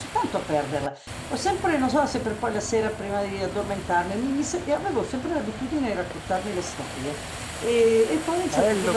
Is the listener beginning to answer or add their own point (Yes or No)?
No